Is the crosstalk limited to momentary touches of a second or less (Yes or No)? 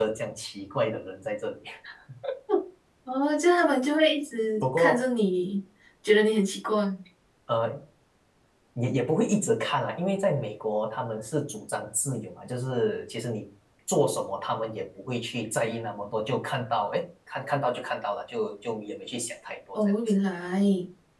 Yes